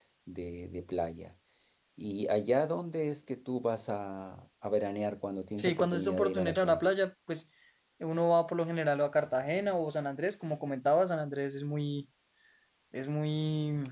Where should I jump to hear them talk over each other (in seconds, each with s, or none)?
5.6 s